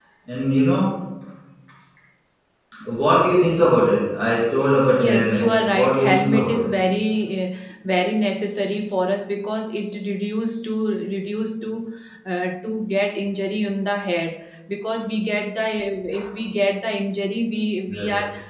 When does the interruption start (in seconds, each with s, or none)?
5.0 s